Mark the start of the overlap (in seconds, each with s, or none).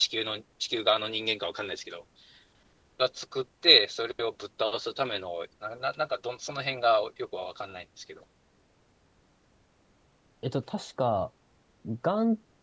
none